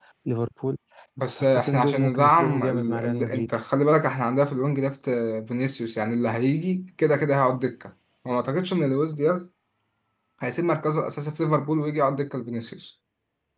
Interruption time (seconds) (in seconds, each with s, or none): 1.3 s